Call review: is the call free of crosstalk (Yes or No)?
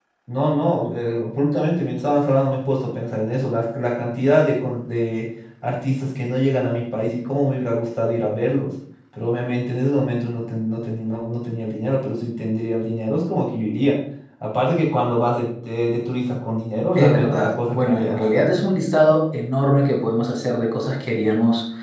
No